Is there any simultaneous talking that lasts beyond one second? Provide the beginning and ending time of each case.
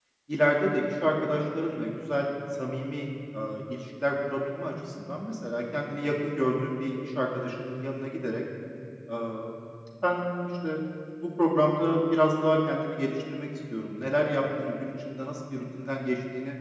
none

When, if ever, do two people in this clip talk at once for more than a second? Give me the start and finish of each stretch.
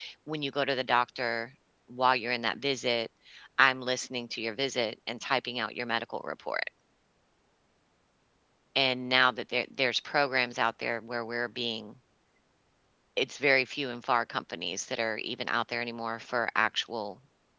none

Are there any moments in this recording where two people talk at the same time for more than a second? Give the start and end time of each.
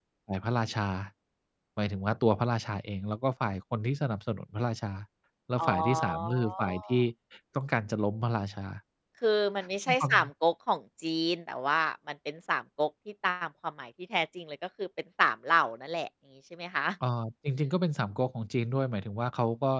5.6-7.0

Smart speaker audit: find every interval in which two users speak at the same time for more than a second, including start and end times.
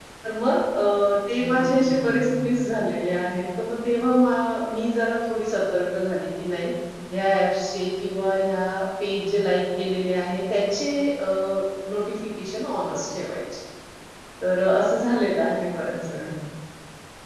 1.4-2.6

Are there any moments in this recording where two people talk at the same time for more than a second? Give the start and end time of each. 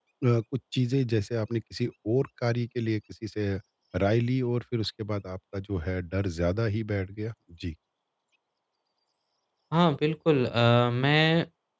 none

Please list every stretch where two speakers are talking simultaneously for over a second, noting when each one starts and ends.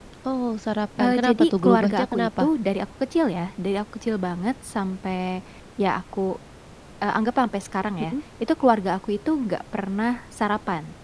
1.0-2.5

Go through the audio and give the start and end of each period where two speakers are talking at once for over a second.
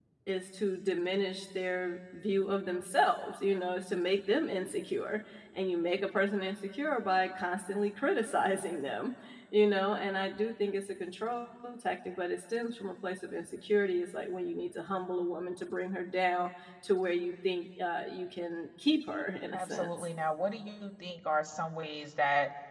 none

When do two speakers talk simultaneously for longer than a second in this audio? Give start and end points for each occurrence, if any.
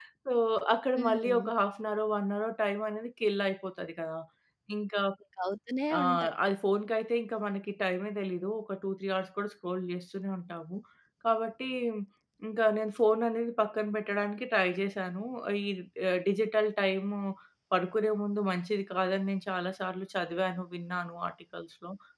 none

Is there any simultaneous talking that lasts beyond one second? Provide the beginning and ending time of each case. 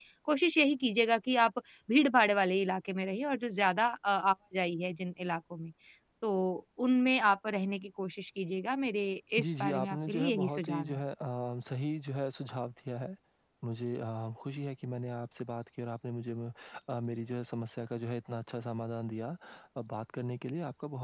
9.4-11.0

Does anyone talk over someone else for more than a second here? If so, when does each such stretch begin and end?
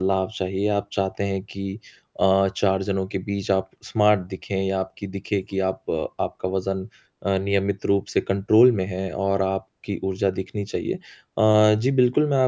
none

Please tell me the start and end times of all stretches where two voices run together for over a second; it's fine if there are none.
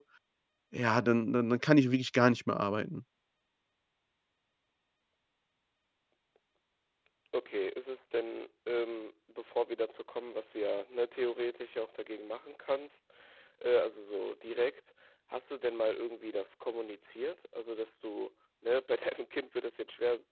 none

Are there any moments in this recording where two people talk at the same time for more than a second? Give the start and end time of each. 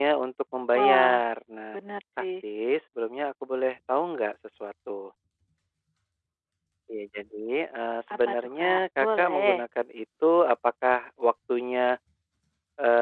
8.1-9.6

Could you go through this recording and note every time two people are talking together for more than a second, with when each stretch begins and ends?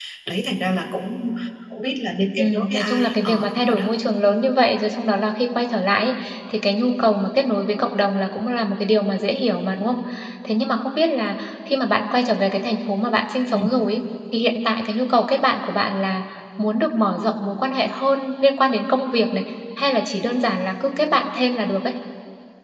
2.4-3.9

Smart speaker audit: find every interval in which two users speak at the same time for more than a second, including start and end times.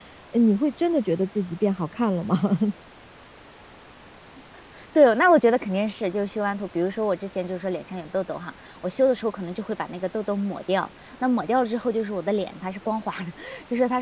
none

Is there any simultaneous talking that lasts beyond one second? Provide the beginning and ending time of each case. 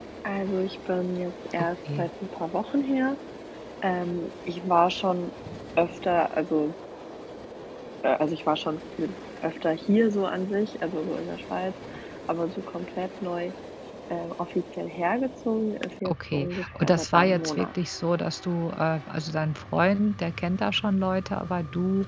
16.0-17.7

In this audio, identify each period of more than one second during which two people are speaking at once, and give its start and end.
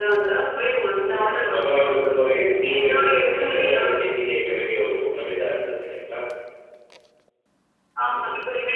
2.8-4.0

